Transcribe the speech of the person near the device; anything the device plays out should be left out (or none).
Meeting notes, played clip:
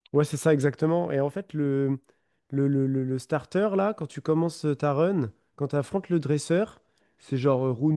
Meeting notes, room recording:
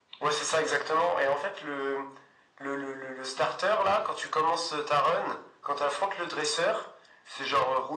none